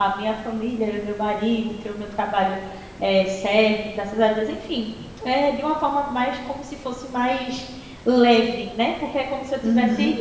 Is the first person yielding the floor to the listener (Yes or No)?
No